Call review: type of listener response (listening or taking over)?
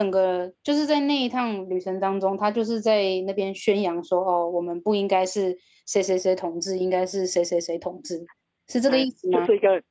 taking over